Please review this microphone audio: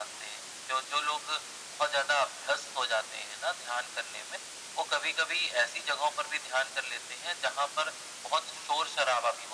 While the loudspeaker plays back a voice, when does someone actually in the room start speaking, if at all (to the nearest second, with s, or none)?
none